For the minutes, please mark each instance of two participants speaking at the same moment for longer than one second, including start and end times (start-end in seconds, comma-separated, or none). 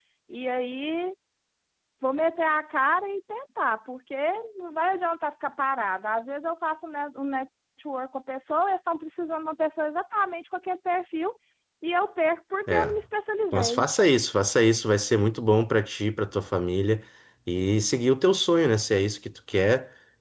none